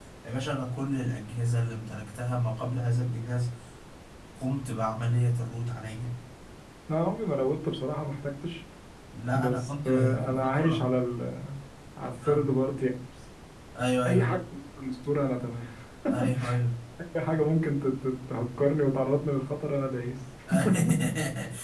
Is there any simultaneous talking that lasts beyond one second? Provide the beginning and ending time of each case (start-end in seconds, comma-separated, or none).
9.3-10.9